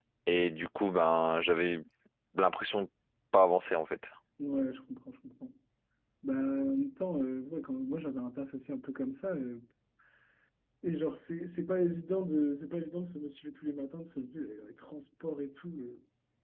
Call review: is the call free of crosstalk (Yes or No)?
Yes